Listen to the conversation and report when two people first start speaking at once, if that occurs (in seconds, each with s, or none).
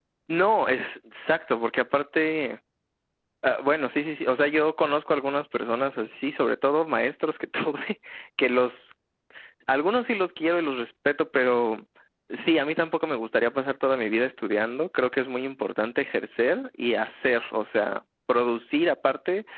none